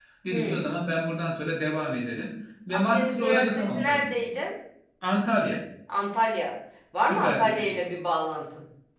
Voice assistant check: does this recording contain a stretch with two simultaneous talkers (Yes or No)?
Yes